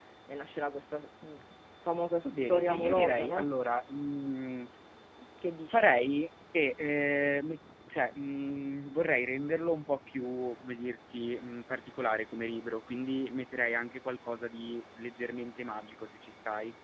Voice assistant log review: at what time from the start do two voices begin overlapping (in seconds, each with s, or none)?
2.2 s